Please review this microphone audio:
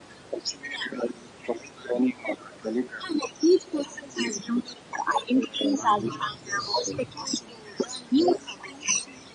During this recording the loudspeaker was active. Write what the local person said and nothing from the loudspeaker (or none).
Mm-hmm. Yes.